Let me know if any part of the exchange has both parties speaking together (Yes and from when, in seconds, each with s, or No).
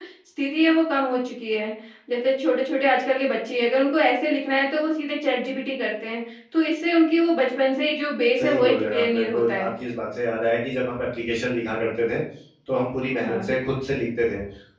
Yes, from 8.4 s